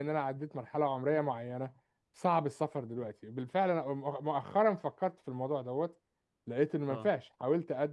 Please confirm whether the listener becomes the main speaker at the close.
No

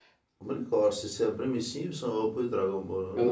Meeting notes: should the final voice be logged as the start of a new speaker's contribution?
Yes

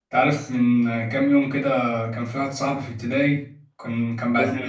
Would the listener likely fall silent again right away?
Yes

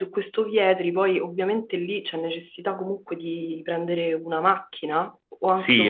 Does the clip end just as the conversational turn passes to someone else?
Yes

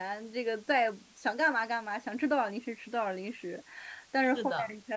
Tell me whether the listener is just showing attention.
Yes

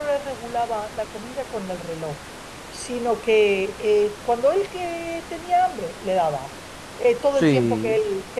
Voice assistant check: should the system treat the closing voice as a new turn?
No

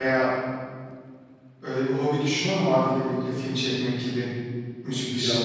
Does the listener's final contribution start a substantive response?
Yes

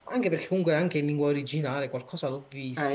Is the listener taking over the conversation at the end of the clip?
Yes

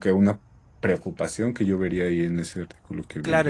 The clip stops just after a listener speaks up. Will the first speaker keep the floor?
No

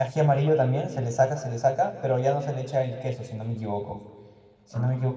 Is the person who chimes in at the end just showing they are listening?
Yes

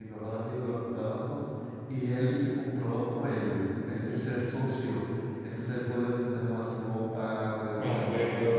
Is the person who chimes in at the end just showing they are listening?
Yes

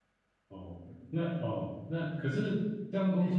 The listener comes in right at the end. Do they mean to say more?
No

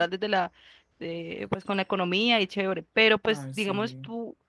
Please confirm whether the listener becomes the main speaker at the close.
No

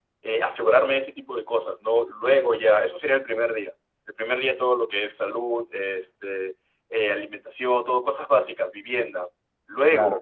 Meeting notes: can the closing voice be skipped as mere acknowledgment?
Yes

